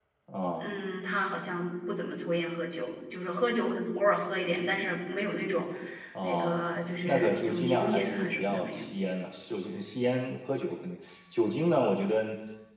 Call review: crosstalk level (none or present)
present